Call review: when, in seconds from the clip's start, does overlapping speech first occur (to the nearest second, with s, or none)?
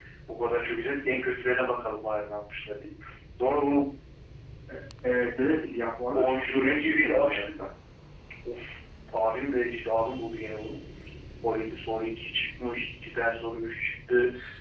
6 s